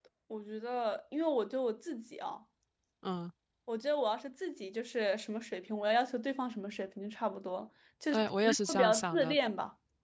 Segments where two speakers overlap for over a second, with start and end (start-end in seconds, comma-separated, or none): 8.1-9.3